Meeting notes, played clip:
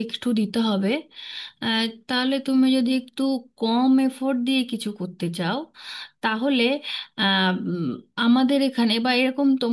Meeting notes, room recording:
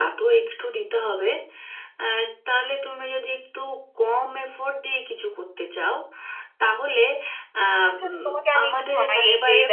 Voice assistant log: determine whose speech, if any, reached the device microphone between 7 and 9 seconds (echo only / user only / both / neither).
both